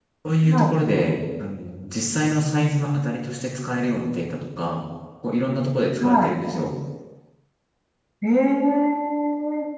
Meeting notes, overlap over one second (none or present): none